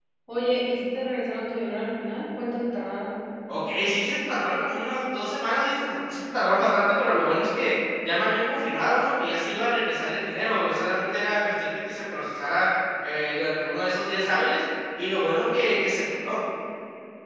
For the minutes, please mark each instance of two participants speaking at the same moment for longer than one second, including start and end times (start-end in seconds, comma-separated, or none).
none